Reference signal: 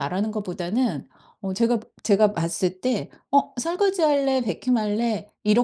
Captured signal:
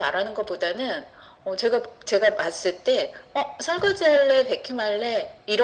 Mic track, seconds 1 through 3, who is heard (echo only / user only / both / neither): echo only